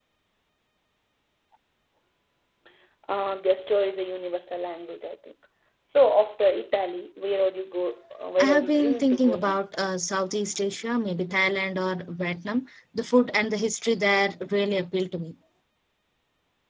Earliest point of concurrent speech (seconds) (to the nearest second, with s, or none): 8 s